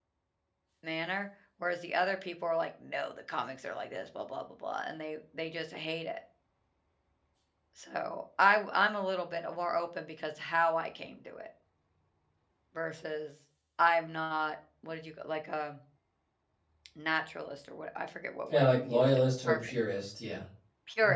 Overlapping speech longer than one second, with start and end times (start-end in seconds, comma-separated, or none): 18.5-19.7